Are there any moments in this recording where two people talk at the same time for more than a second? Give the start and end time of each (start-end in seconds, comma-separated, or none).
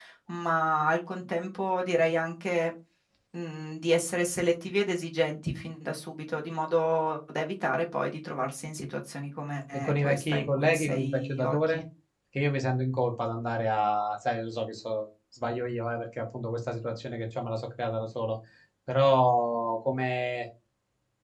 9.7-11.8